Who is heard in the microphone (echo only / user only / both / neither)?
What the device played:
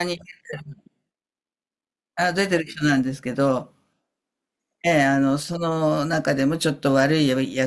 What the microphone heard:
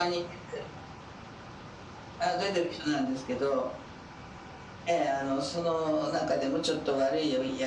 echo only